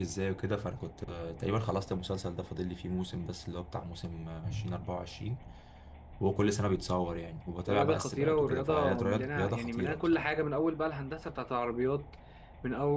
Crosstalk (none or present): present